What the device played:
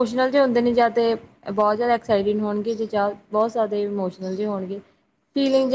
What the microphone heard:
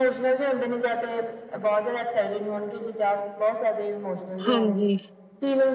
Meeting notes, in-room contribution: present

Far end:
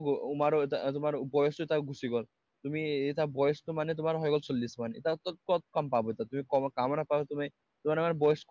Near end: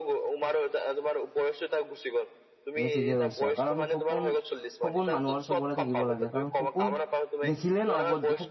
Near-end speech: present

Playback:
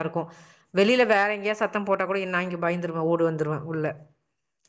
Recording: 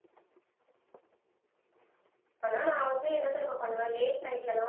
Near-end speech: present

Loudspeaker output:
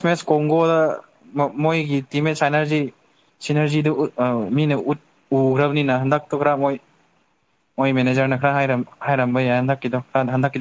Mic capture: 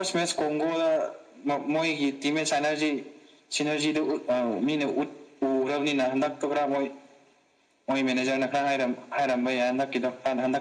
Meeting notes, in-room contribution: none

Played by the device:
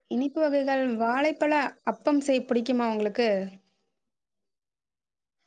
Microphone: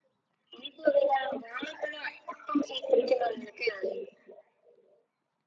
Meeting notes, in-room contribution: none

